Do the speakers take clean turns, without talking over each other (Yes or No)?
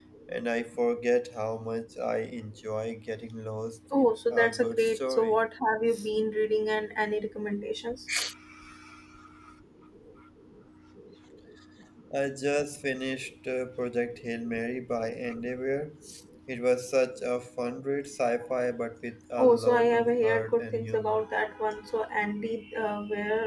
No